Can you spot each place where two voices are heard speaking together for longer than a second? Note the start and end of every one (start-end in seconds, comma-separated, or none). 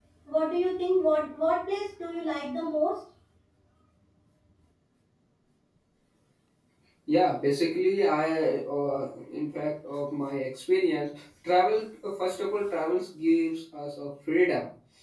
none